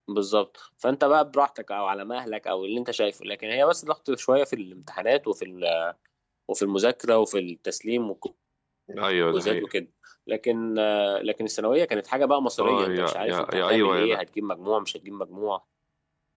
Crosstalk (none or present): present